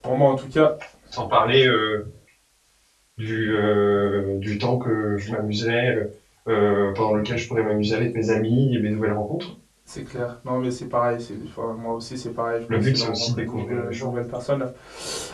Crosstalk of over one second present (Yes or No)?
Yes